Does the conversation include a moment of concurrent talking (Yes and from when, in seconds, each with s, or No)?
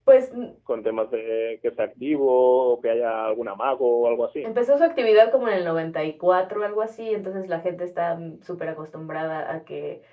No